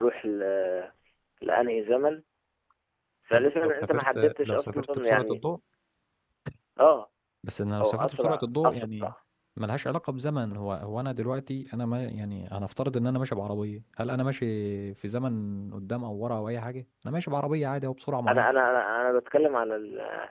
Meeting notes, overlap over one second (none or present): present